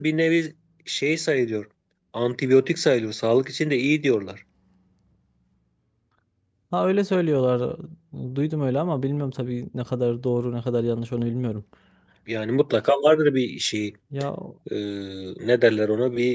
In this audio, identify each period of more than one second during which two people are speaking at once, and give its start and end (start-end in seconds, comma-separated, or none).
none